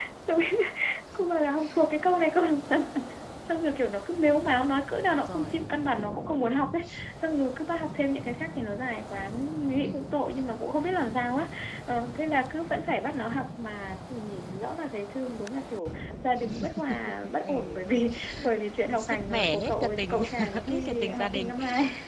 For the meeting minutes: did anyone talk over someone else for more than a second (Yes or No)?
Yes